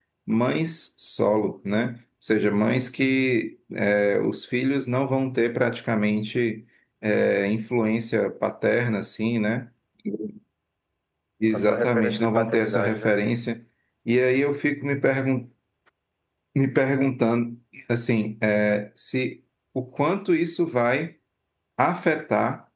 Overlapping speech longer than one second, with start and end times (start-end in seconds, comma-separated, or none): 11.5-13.2